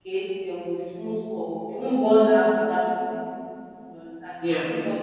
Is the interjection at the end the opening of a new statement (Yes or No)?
No